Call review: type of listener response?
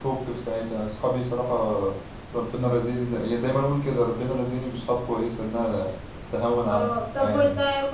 taking over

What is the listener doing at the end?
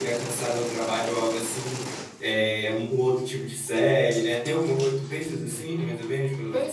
taking over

